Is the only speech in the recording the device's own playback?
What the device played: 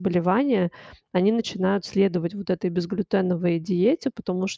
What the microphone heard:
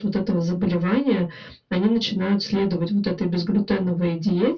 Yes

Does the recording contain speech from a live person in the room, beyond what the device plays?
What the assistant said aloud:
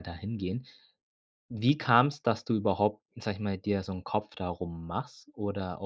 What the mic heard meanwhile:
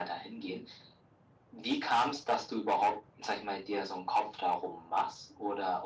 No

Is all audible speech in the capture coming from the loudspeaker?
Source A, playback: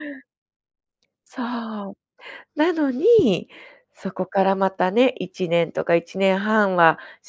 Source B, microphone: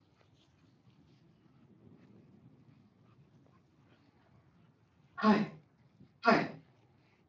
No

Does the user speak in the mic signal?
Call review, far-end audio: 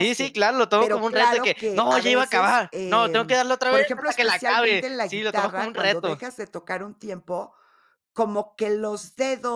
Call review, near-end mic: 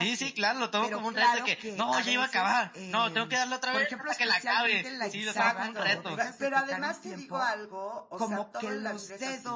Yes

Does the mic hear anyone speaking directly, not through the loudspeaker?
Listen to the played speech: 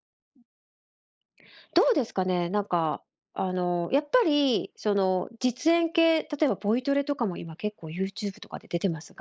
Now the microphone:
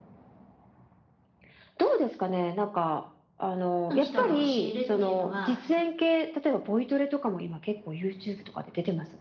Yes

